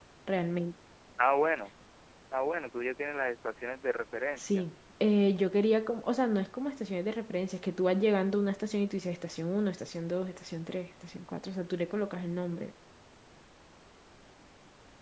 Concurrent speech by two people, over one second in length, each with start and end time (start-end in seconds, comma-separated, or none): none